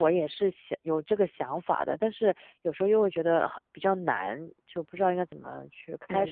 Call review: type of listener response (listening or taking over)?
taking over